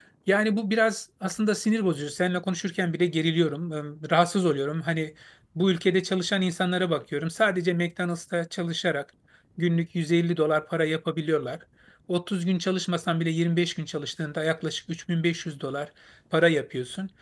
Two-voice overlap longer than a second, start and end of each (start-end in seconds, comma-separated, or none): none